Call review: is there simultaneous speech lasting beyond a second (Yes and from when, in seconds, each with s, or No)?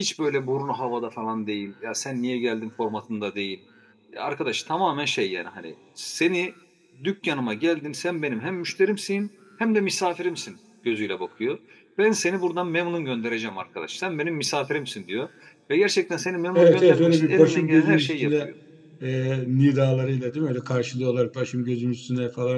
Yes, from 16.6 s